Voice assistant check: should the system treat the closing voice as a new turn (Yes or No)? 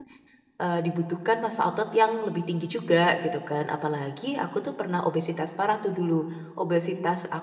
No